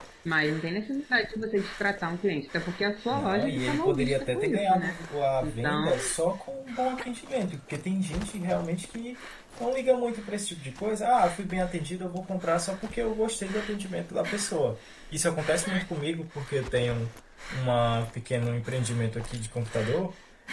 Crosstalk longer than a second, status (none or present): present